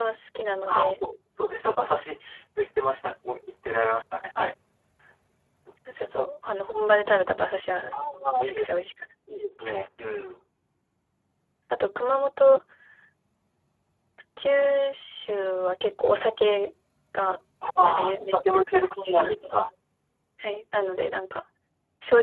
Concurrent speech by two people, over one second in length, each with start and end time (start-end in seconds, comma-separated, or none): 17.8-19.5